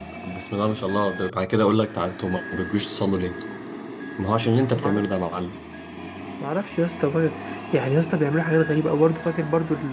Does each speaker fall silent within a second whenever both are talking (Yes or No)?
Yes